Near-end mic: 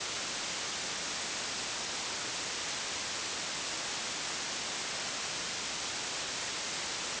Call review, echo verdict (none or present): none